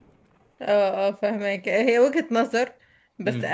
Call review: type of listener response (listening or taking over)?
listening